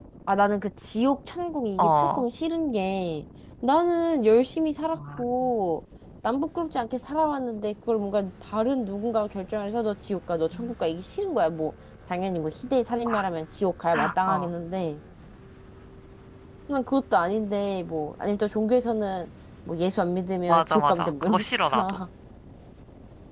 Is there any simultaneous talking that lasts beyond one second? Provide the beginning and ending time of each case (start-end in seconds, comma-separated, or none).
20.5-22.0